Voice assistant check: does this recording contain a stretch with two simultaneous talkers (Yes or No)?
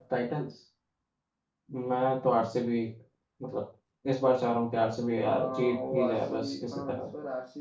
Yes